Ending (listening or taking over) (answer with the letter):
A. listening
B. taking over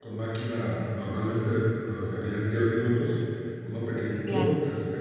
A